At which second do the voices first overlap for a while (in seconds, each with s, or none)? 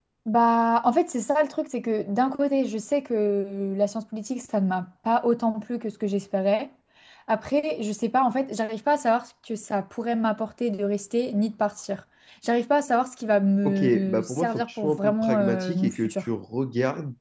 13.6 s